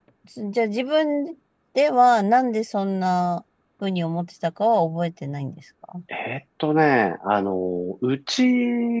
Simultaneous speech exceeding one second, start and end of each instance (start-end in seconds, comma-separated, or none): none